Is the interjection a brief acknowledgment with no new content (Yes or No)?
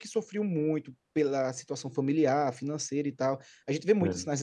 Yes